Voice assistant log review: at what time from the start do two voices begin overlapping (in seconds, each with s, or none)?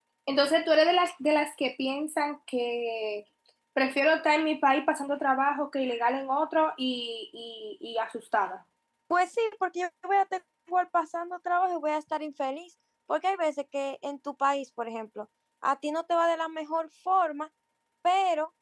none